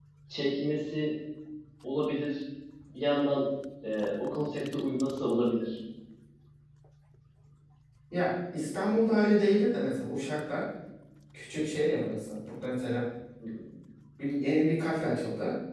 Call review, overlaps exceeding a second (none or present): none